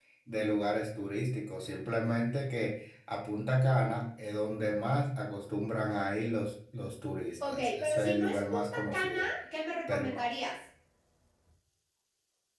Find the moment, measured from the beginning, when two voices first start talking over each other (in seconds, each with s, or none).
7.5 s